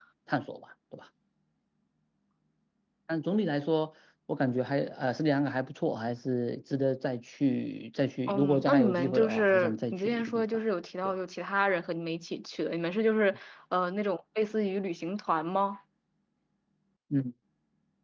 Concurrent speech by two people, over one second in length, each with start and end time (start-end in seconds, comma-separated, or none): 8.3-10.4